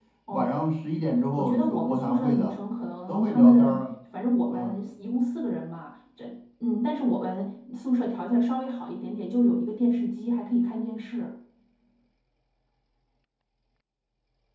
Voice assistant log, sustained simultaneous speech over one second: present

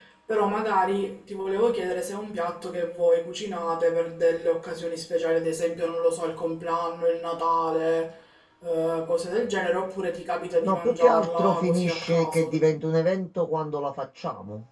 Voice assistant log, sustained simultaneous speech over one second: present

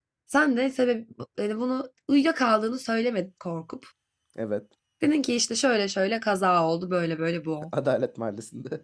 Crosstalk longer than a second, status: none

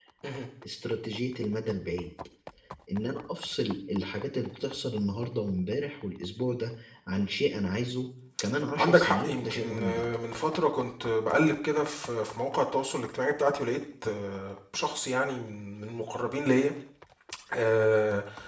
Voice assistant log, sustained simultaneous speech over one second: present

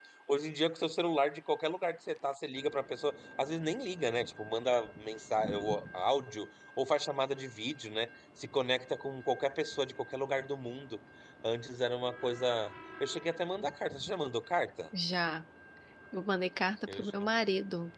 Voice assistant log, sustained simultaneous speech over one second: none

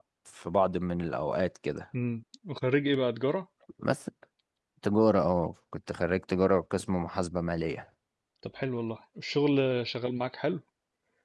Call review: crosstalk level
none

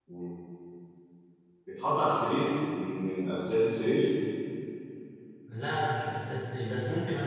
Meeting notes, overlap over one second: none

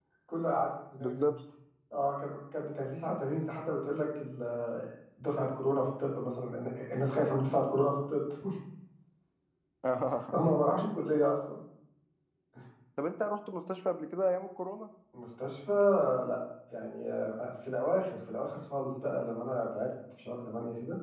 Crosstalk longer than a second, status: none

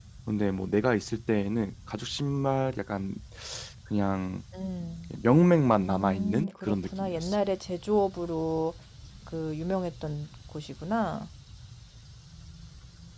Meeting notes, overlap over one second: present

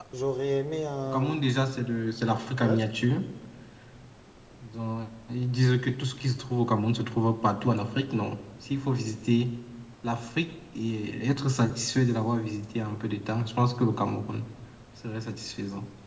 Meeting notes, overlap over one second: none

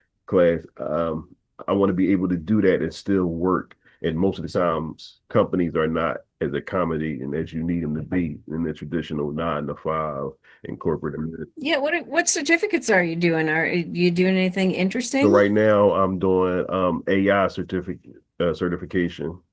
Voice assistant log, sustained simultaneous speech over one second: none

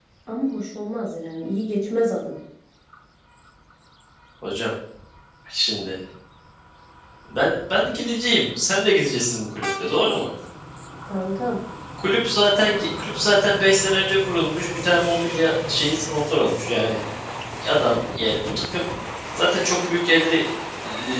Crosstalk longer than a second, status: none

